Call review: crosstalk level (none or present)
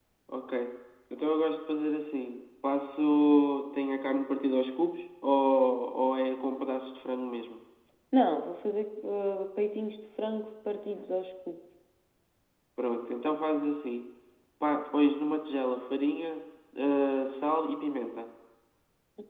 none